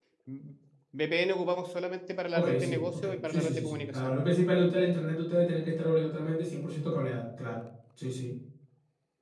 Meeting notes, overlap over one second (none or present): present